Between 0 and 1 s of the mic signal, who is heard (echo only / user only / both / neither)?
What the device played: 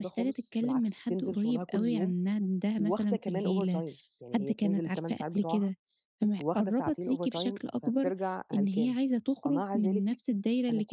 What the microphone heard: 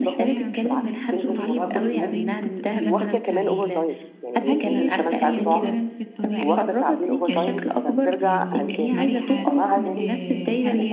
both